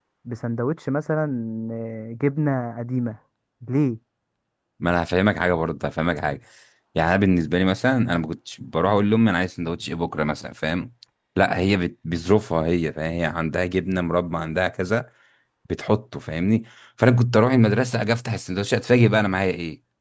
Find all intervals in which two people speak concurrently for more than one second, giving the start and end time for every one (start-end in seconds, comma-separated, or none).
none